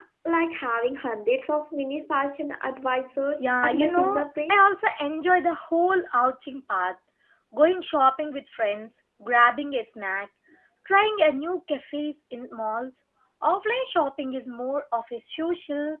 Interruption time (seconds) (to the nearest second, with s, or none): 3 s